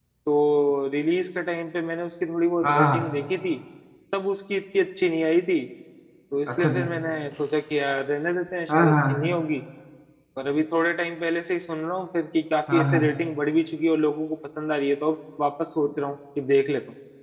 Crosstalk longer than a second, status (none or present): none